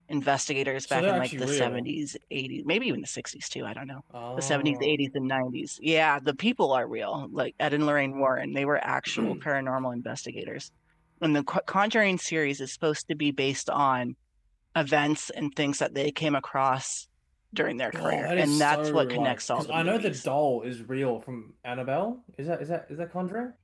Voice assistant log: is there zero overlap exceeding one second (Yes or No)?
No